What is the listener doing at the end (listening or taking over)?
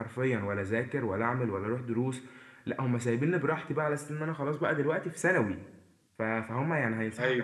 listening